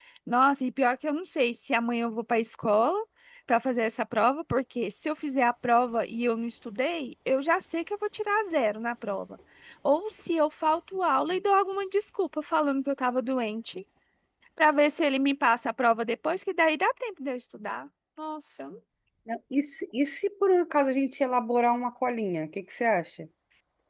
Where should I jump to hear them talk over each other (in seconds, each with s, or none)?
none